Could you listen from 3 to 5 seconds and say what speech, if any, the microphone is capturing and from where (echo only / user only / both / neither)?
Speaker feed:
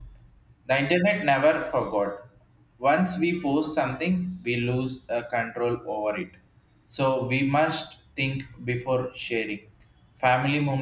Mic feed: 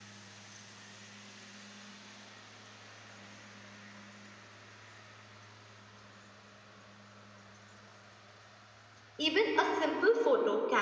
neither